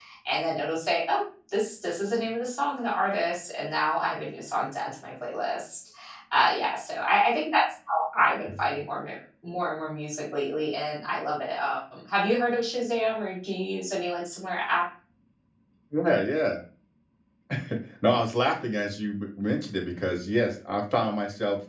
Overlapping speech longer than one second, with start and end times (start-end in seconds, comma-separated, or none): none